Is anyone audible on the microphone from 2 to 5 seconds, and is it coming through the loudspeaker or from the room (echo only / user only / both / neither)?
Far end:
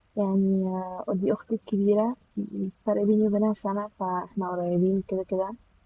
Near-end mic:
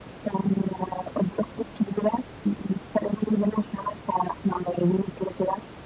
echo only